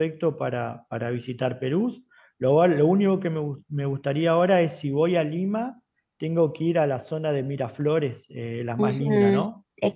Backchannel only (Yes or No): No